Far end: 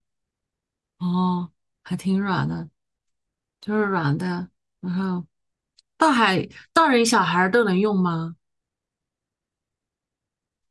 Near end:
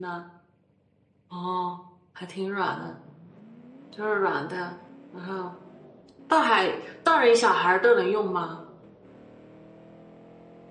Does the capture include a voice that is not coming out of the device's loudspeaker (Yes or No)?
No